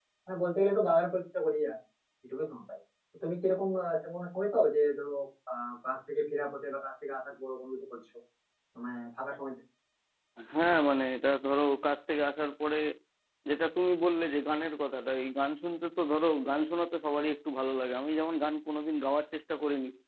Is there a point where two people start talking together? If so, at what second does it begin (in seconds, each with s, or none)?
none